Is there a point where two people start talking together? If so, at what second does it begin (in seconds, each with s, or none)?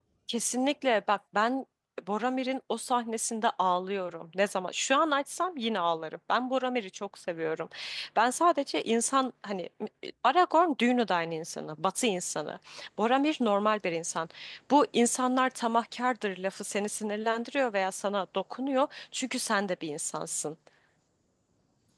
none